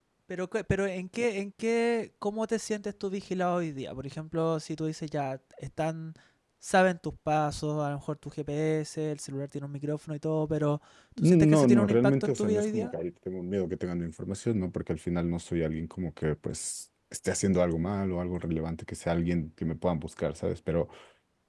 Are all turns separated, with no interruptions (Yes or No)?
No